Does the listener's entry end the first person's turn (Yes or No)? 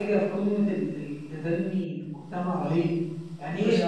No